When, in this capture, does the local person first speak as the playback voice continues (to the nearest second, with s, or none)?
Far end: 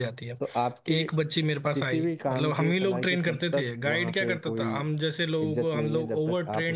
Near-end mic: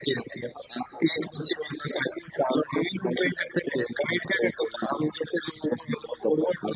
none